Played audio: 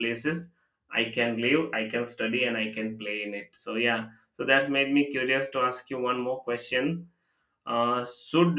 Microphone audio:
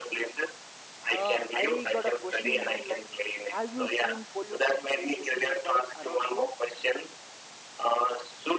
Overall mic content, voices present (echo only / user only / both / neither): both